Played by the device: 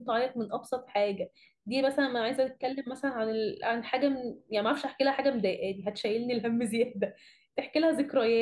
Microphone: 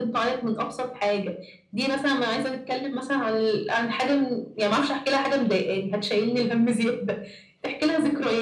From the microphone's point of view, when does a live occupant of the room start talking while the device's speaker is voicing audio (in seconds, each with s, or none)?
none